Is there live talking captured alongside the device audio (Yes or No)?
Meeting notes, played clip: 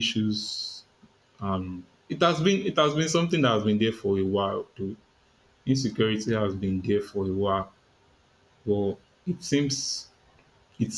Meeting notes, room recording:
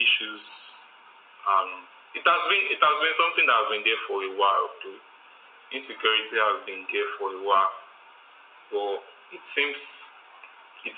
No